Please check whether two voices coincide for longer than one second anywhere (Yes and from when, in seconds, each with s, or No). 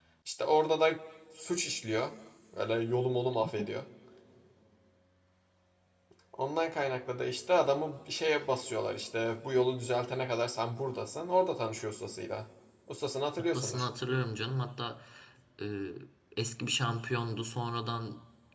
No